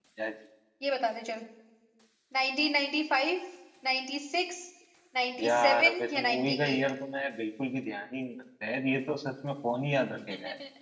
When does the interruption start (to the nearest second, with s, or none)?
5 s